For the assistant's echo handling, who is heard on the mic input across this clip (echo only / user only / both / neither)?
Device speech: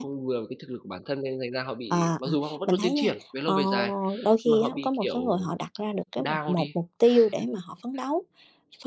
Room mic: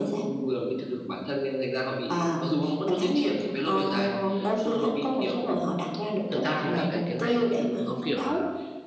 both